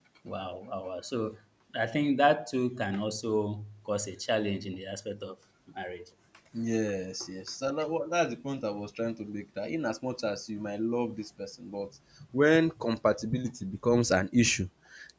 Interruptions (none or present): none